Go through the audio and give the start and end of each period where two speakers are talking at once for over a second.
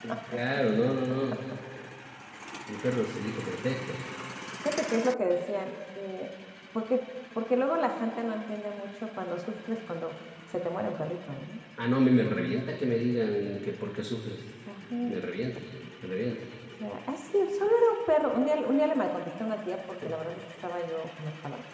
none

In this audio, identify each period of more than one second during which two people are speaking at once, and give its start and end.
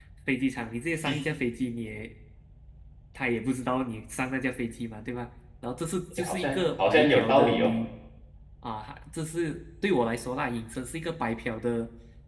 6.2-7.7

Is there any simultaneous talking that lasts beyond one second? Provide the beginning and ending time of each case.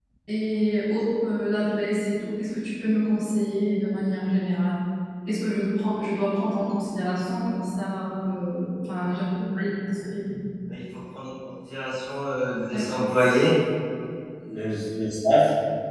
none

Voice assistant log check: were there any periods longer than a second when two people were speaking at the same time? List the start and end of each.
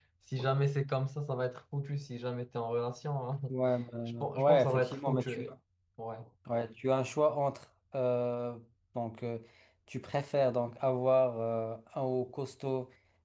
4.2-5.4

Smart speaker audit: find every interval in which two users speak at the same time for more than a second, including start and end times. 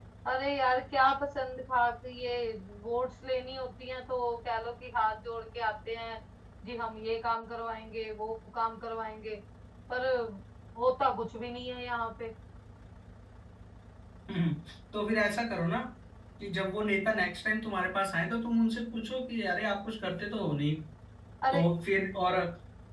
none

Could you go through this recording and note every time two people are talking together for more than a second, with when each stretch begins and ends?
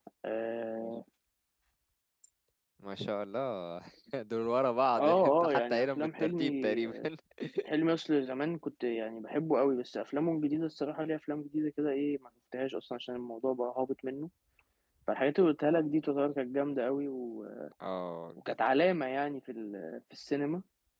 5.0-6.8

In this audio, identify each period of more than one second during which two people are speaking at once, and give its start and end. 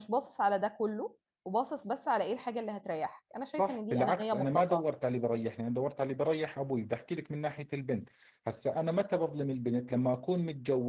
3.6-4.9

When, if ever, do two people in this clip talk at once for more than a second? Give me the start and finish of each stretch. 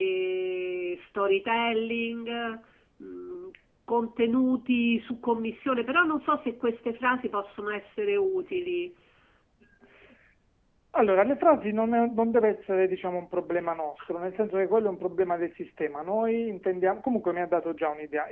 none

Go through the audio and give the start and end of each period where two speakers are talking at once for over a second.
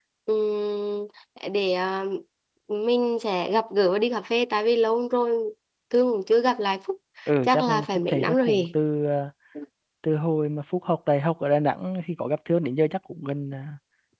7.4-8.6

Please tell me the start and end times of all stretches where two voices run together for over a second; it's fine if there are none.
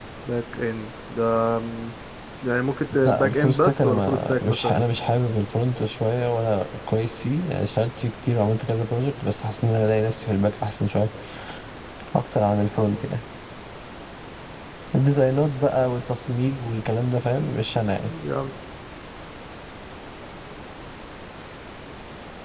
3.0-4.8

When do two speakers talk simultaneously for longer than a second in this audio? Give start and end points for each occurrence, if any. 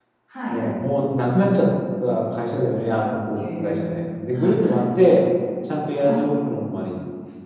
3.5-4.8

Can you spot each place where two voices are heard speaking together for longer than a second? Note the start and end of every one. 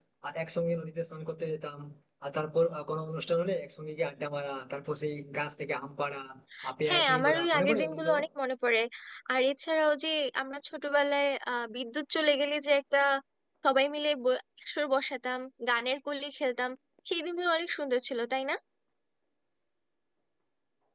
6.9-8.2

